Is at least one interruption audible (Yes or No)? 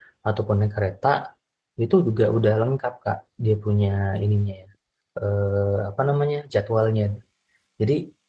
No